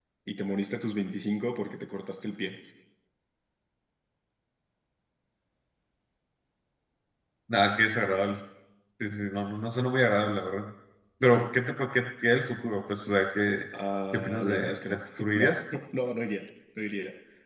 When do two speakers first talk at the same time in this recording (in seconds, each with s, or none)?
14.1 s